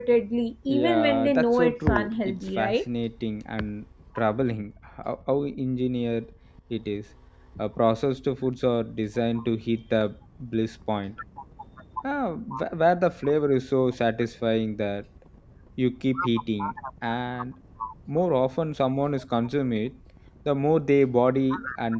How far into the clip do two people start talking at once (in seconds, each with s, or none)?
0.7 s